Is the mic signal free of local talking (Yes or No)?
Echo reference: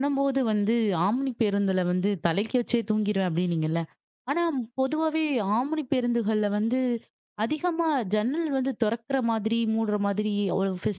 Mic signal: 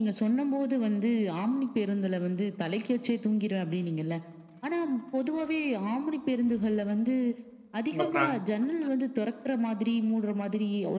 No